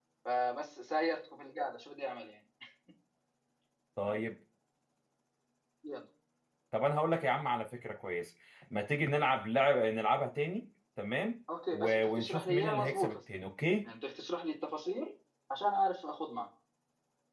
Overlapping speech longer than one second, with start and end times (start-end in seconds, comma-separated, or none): 11.7-13.2